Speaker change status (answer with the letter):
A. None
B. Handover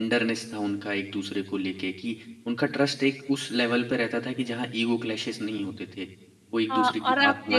B